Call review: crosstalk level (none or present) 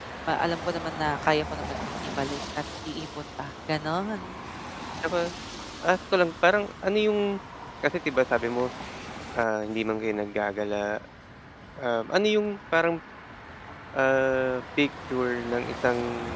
none